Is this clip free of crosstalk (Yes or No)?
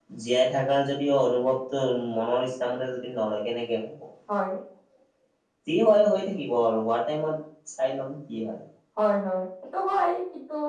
Yes